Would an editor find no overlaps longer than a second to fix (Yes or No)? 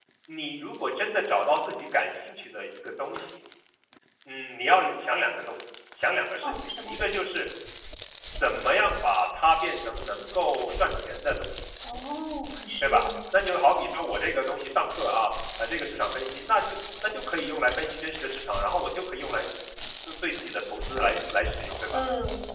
Yes